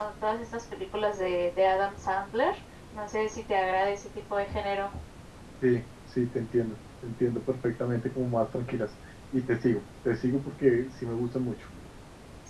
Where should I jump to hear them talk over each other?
none

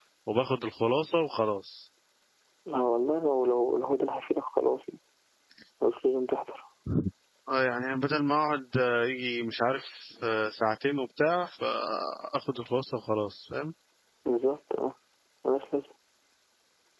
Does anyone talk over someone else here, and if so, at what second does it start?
none

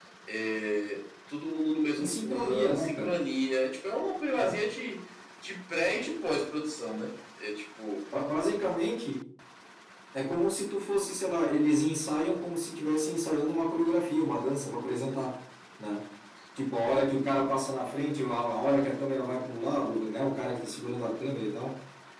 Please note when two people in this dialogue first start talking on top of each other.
1.9 s

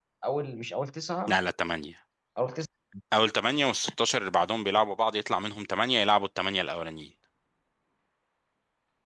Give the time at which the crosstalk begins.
none

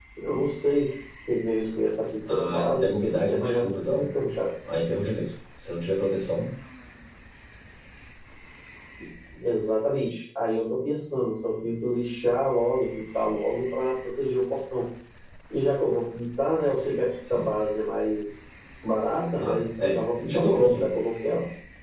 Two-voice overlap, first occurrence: 2.3 s

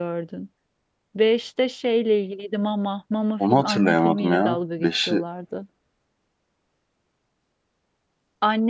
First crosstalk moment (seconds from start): 3.4 s

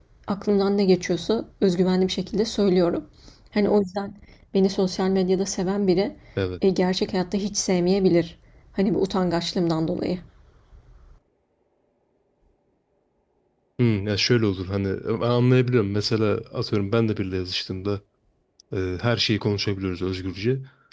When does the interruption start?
none

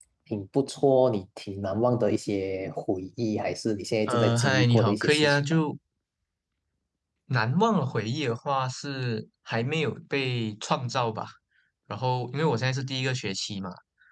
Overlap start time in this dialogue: 4.1 s

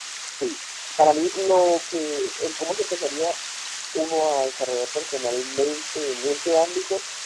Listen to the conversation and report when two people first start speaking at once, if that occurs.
none

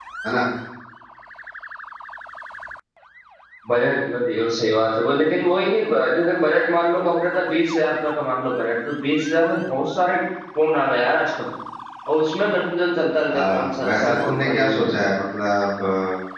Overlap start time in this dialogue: 13.3 s

